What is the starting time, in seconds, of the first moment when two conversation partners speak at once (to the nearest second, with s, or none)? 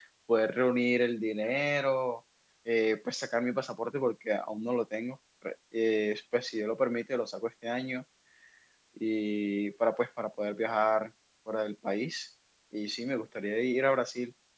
none